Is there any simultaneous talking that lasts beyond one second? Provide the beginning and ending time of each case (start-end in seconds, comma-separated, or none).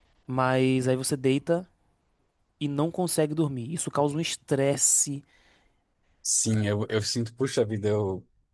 none